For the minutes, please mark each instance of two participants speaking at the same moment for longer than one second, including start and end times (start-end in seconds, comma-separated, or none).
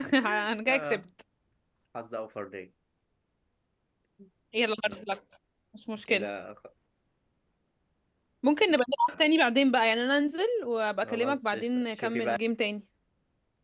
11.0-12.4